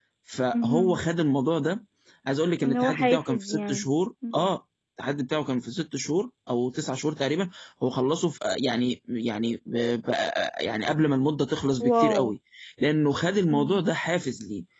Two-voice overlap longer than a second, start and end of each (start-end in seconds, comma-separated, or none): 2.6-3.9